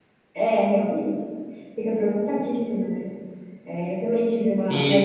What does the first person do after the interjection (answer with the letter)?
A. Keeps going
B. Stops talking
B